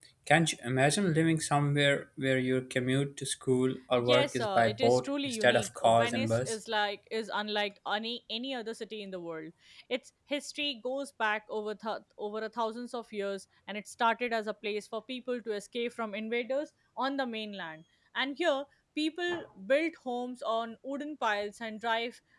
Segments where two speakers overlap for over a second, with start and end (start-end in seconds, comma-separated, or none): 4.0-6.6